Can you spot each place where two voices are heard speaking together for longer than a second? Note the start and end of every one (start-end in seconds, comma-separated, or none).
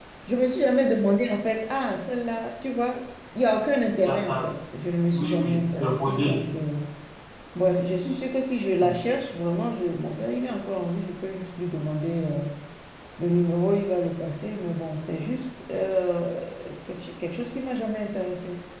5.1-6.4